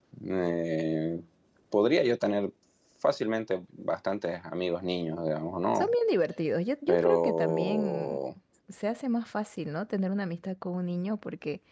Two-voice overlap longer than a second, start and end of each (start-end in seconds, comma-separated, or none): 6.9-8.2